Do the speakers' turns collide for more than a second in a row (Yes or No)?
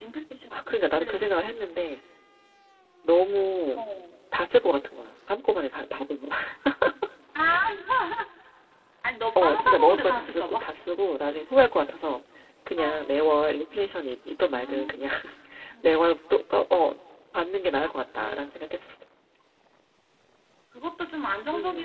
Yes